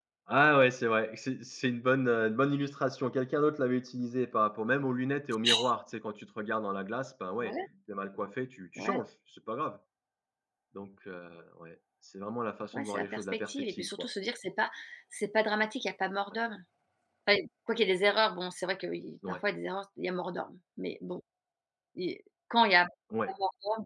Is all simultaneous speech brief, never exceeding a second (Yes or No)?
No